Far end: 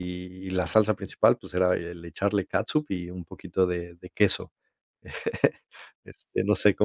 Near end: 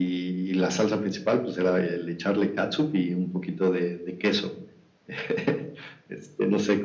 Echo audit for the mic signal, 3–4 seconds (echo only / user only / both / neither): echo only